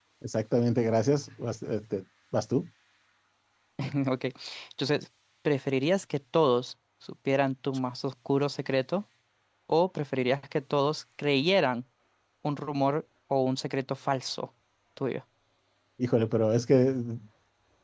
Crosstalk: none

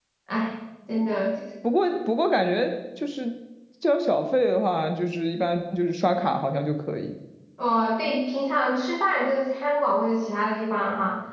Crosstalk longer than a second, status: none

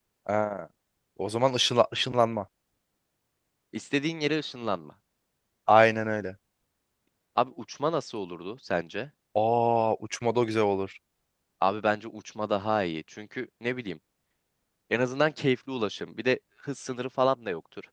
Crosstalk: none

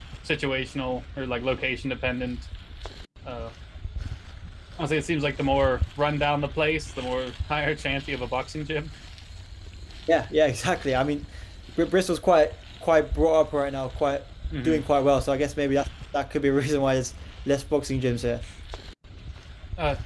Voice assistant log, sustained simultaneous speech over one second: none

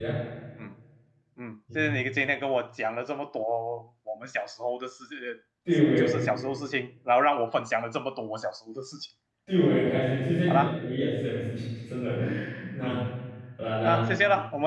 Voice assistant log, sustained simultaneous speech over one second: none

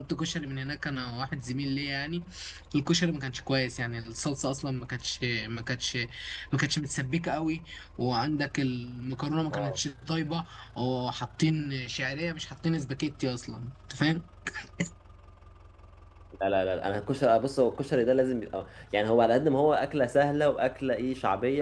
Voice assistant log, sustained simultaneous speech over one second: none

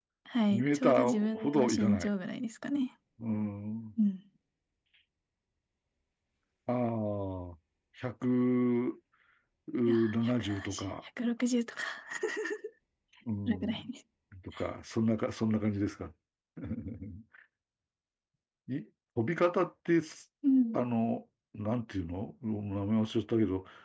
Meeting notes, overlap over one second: present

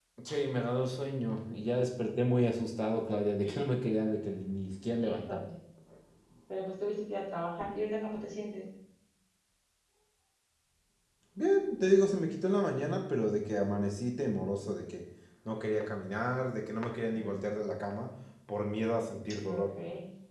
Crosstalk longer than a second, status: none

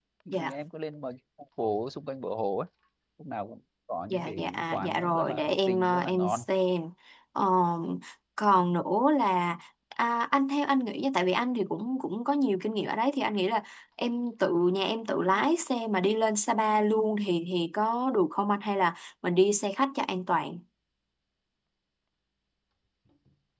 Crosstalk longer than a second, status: present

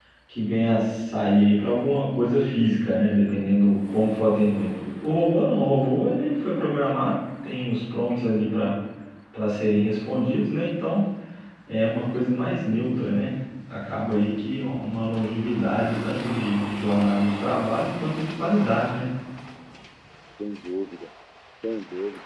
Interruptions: none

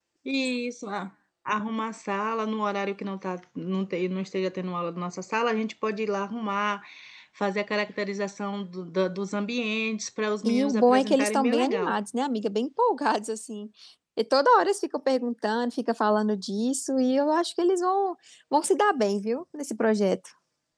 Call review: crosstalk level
present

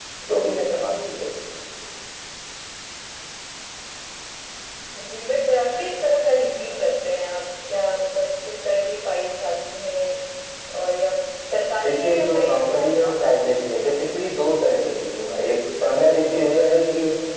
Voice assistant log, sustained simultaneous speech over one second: present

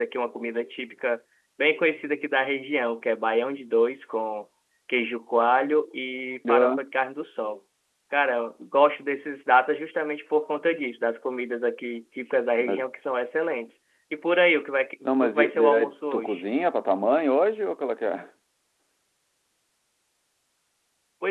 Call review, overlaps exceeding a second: present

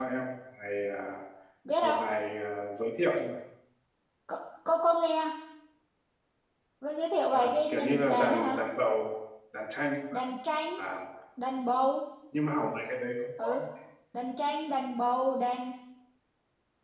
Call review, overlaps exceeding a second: present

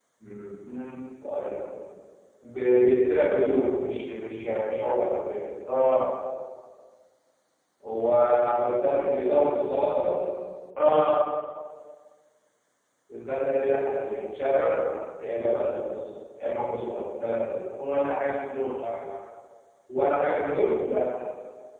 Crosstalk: none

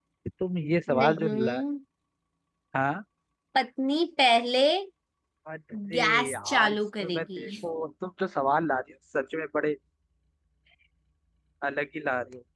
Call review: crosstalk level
present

